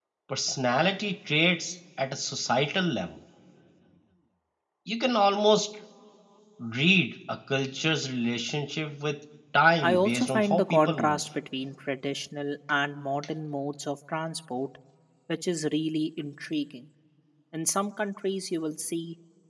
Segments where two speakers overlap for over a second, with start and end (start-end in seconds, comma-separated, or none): 9.8-11.2